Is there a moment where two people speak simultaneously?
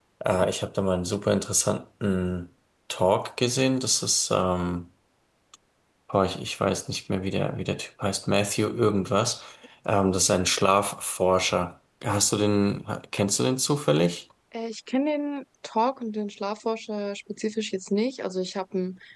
No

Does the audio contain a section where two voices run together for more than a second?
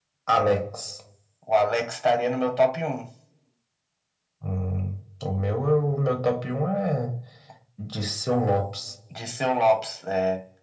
No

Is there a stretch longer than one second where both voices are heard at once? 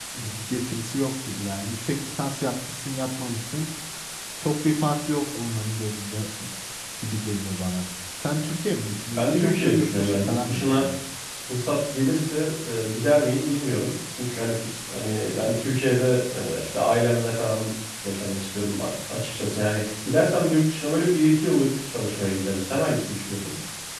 Yes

